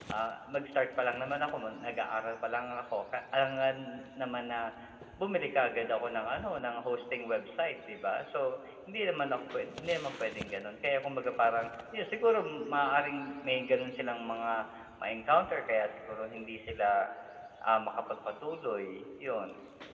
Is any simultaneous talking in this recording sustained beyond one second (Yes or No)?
No